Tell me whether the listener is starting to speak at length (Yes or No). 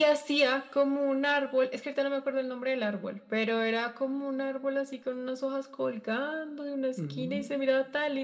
No